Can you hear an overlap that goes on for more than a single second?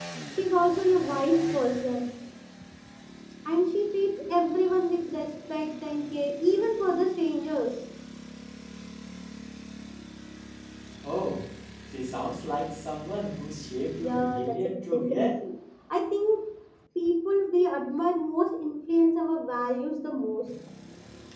Yes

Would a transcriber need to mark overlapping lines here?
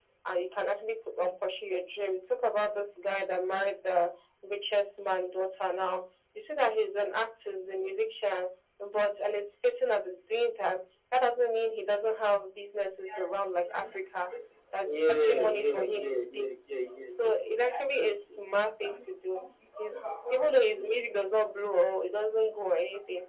Yes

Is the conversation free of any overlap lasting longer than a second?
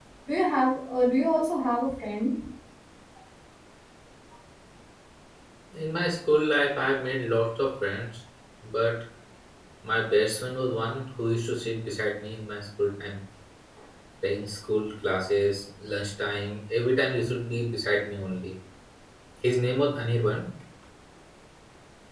Yes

